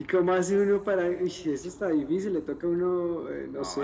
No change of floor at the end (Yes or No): No